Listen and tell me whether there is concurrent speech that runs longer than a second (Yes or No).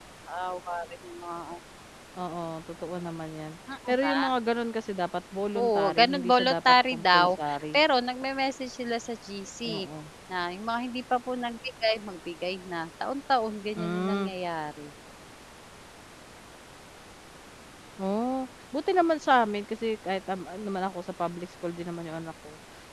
Yes